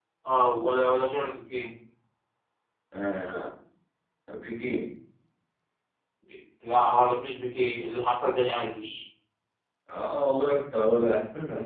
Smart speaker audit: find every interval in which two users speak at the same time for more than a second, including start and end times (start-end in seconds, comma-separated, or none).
none